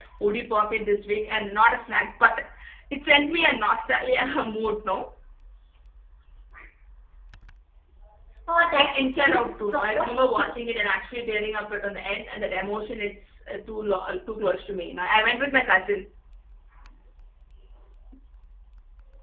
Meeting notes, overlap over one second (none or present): present